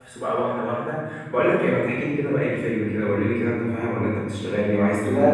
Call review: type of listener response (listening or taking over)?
taking over